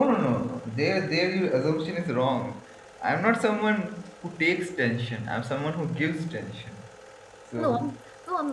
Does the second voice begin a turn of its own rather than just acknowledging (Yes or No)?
Yes